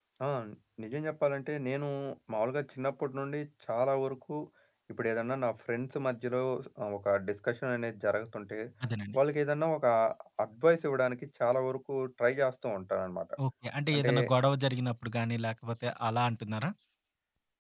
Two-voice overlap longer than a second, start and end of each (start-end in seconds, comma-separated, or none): none